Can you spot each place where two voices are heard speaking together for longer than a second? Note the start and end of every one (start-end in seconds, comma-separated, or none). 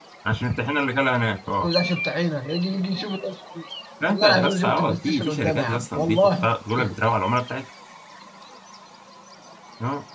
4.1-6.5